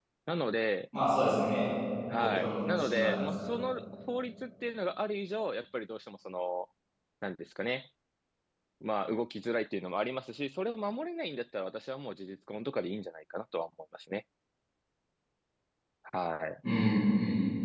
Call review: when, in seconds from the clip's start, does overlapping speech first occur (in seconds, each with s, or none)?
2.2 s